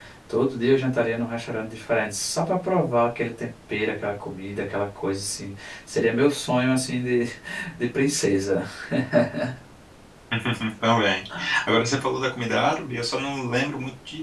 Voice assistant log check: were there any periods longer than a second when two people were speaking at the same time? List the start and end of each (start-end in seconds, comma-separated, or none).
none